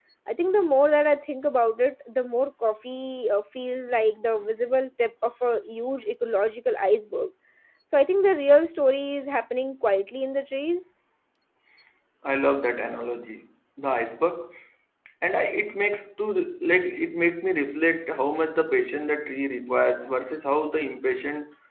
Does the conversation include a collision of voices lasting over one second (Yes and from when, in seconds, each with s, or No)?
No